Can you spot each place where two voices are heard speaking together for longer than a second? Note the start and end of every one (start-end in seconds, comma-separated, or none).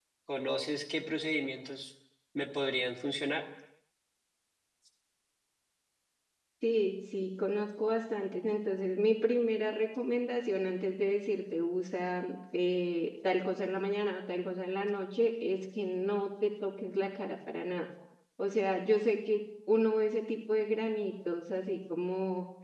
none